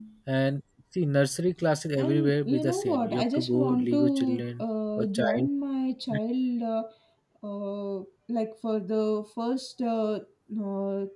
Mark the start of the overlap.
2.0 s

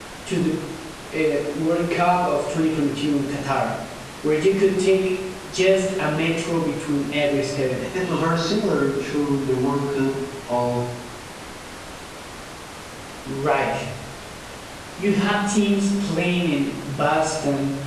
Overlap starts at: none

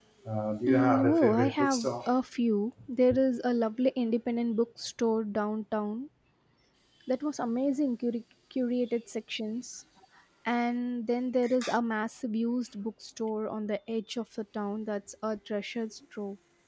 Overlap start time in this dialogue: 0.7 s

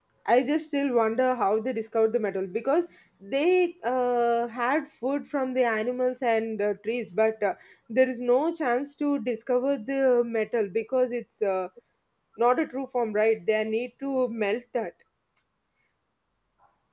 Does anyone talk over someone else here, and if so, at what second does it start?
none

